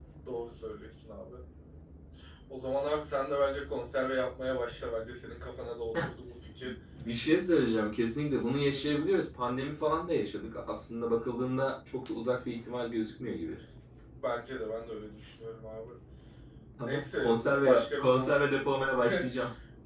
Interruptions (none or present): present